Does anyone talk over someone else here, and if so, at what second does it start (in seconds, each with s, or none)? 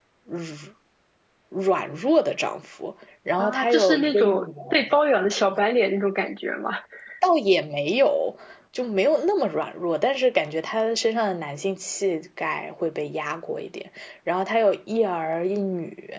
3.4 s